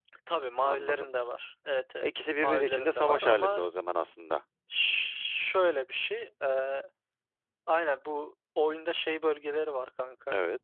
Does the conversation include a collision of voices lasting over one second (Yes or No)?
Yes